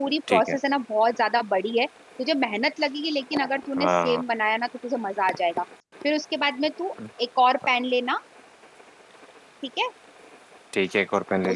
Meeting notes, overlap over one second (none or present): none